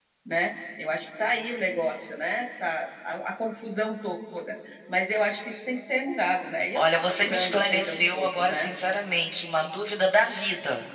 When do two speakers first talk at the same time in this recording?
6.8 s

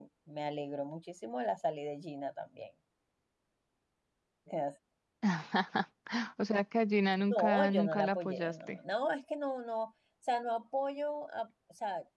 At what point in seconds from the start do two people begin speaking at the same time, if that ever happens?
7.3 s

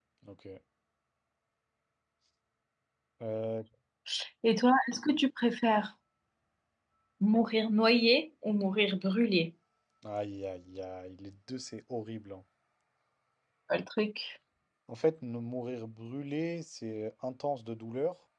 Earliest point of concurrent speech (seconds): none

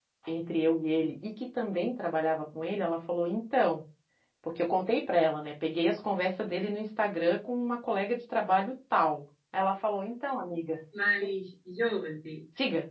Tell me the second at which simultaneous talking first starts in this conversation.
none

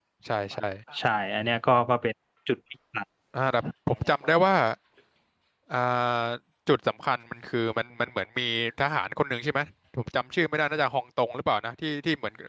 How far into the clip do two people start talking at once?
none

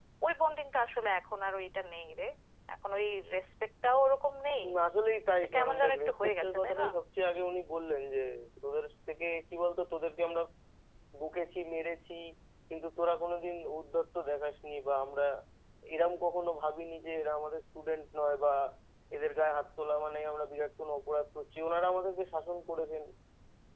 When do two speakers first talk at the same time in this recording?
5.4 s

